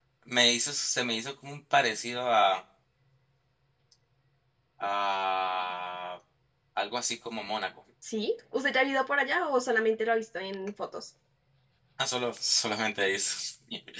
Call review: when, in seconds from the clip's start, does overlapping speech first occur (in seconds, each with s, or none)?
none